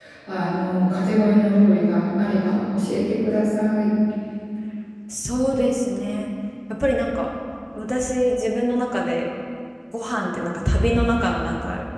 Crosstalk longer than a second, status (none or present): none